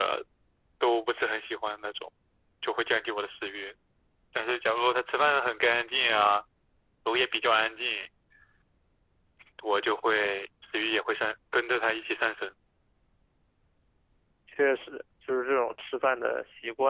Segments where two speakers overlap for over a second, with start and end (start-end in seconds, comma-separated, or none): none